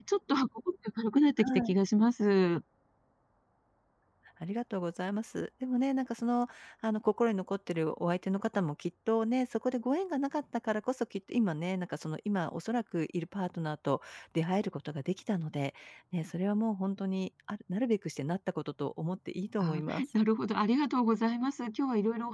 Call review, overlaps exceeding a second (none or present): none